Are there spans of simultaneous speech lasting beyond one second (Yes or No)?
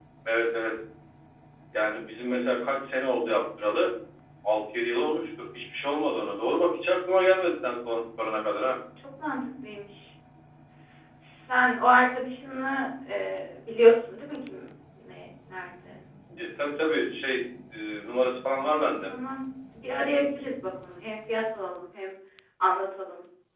No